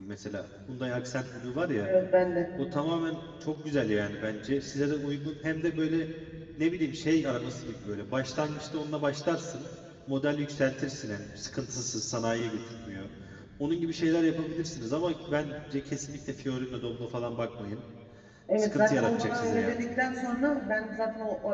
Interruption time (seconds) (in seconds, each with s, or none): 18.6 s